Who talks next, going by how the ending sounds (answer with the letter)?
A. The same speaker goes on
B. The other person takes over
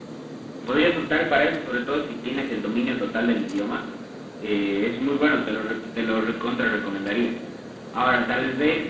A